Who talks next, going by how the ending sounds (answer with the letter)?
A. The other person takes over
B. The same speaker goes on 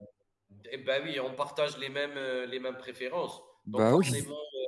B